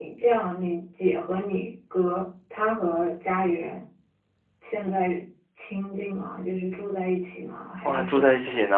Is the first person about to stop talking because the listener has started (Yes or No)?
Yes